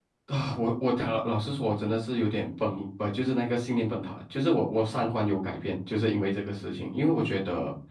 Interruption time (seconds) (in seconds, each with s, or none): none